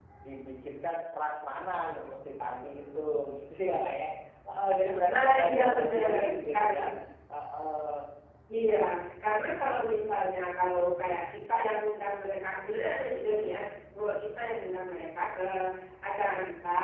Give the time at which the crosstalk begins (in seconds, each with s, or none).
5.1 s